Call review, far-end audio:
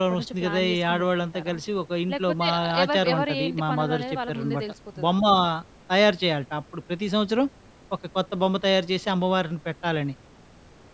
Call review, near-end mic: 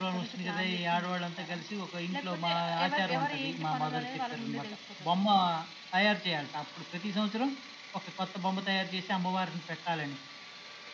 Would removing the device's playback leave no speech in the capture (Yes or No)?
Yes